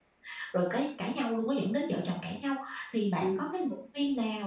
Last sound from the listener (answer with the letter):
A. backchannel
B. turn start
A